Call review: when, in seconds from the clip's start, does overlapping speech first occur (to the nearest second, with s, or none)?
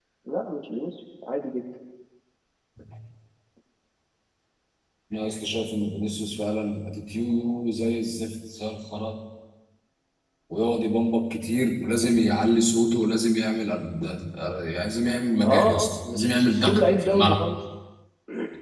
15 s